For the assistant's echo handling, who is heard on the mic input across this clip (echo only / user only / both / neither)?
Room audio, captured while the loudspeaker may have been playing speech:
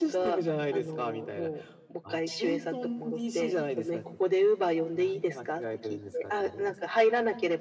echo only